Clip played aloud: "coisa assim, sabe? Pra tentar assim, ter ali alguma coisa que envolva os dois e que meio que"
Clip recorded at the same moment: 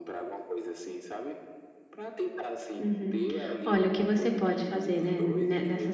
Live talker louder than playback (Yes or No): Yes